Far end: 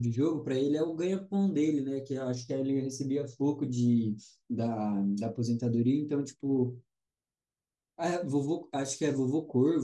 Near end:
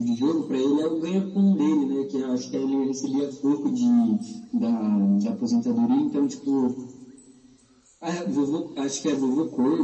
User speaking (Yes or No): No